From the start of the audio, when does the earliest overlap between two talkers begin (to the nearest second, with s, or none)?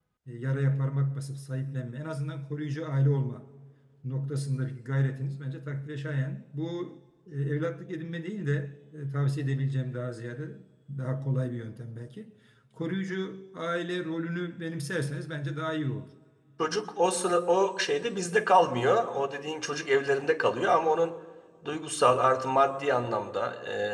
none